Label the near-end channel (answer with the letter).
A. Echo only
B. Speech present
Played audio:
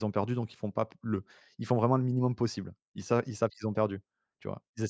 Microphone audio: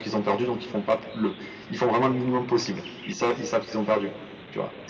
A